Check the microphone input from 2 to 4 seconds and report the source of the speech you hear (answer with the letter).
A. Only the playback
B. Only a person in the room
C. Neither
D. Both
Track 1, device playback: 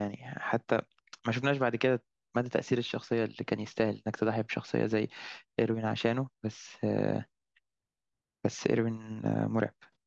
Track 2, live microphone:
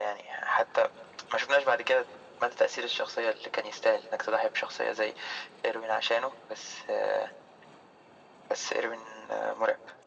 A